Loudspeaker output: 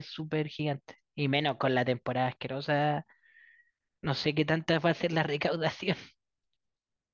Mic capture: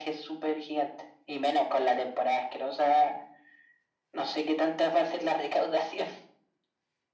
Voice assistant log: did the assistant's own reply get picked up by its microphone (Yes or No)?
Yes